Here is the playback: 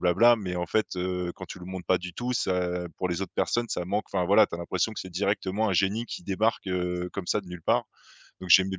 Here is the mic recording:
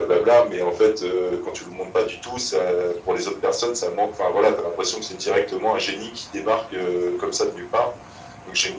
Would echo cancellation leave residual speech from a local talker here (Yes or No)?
No